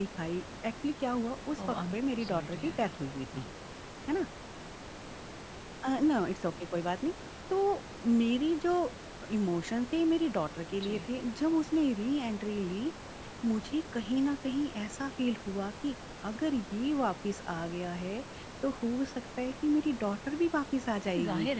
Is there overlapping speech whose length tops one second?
Yes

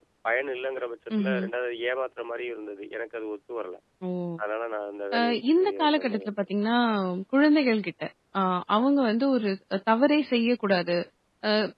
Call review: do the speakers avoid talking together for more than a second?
No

